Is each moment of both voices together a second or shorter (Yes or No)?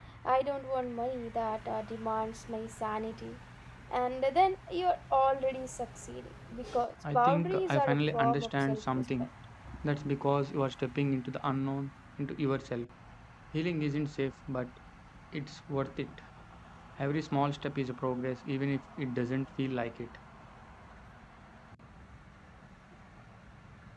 No